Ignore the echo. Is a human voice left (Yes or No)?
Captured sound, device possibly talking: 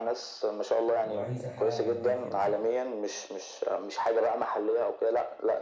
Yes